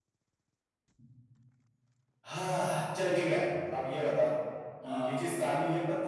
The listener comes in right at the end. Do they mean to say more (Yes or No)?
No